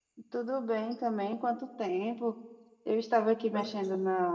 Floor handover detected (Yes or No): No